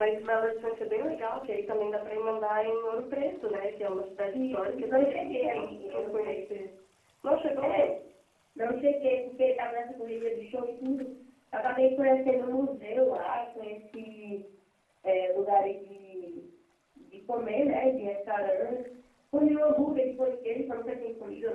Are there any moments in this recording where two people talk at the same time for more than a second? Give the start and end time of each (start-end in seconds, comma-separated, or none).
4.3-6.3